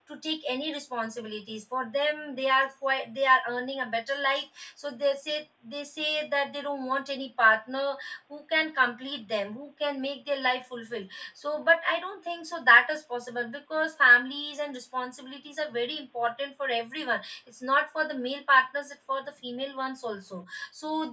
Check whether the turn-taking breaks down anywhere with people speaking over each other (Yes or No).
No